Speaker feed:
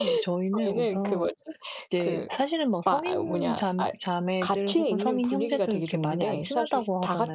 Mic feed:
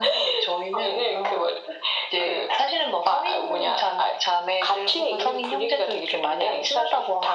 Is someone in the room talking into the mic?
No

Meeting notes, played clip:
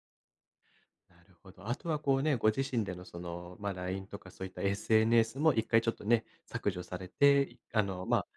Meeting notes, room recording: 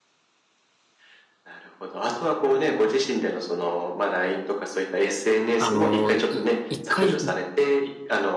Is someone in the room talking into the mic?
Yes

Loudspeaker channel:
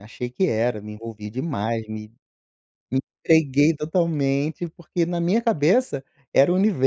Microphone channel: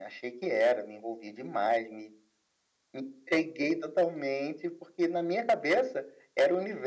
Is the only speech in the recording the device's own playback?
Yes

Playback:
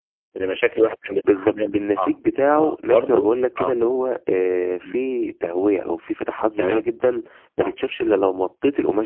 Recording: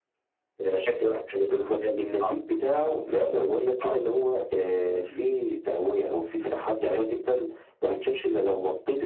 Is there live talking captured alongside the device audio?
No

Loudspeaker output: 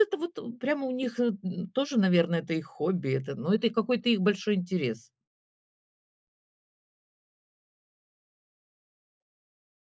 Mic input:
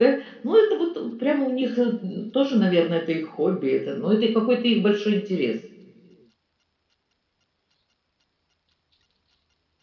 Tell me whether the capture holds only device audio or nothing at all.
Yes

